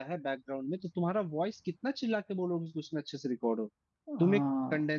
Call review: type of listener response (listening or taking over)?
listening